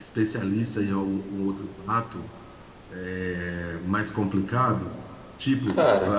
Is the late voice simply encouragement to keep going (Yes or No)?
Yes